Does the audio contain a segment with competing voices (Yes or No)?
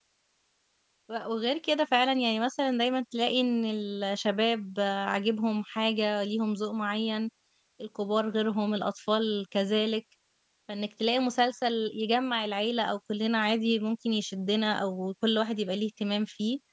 No